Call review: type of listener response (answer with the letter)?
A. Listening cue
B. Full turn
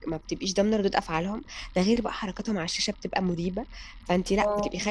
A